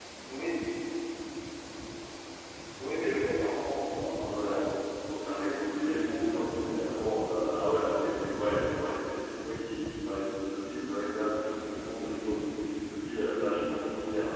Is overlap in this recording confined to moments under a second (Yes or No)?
No